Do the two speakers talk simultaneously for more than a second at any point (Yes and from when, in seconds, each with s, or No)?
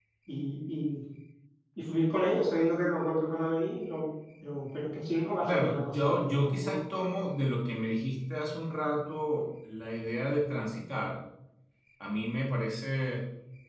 Yes, from 5.5 s